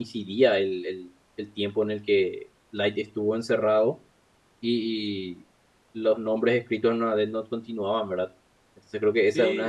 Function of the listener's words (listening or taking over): taking over